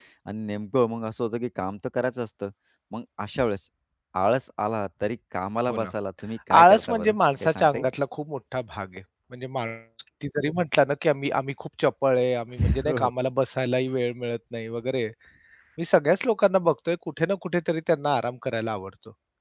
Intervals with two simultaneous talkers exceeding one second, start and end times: 6.6-7.9

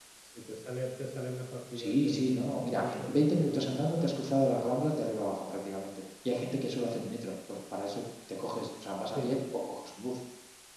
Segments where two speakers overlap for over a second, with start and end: 1.7-4.0

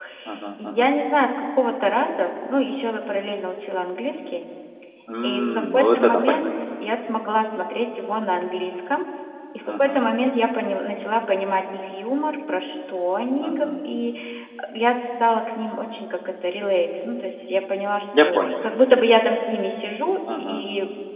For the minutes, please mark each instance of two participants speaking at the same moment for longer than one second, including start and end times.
5.2-6.4

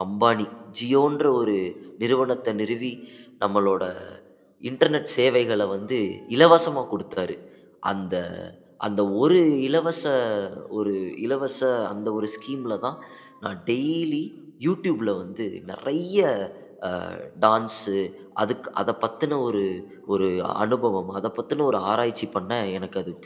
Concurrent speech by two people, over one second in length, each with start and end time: none

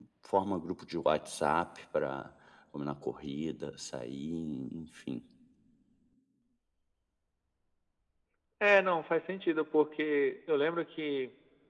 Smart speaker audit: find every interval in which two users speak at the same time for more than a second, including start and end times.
none

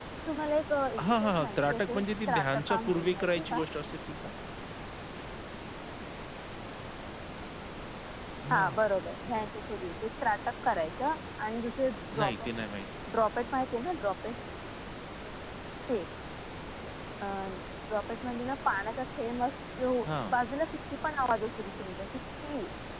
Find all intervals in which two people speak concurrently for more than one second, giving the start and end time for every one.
1.0-3.6

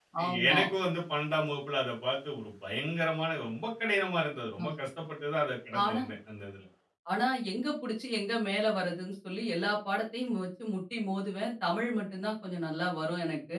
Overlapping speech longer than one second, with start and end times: none

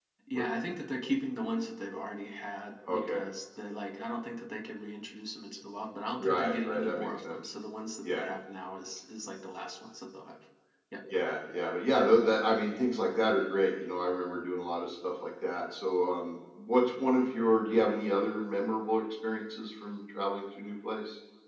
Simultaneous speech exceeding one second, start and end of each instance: 6.2-7.4

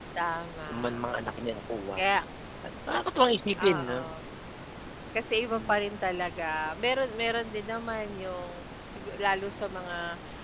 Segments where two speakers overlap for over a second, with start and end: none

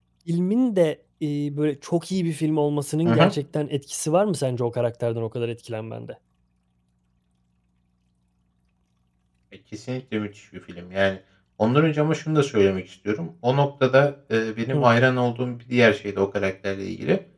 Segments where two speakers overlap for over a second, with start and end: none

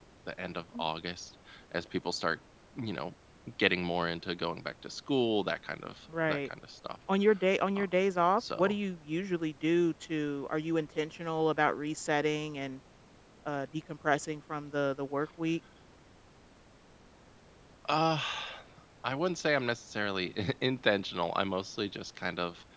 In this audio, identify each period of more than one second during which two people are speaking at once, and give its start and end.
none

